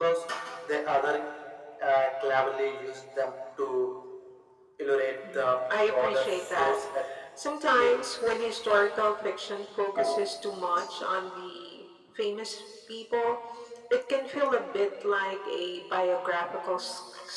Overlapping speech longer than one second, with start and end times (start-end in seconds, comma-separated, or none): 5.2-6.8